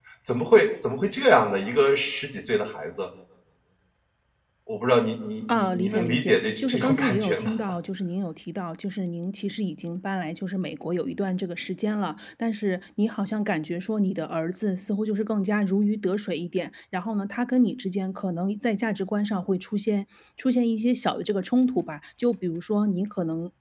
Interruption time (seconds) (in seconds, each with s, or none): 5.5 s